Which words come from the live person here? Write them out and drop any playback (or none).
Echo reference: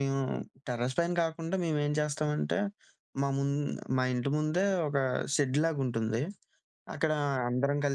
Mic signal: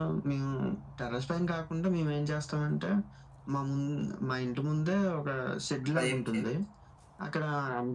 అట్లా ఏం చేయరా?